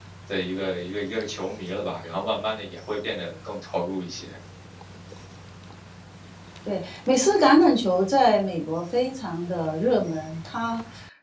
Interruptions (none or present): none